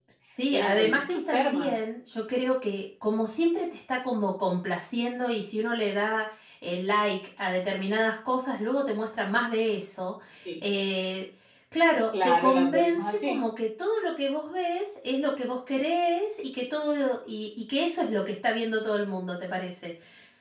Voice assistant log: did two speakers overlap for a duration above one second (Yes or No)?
Yes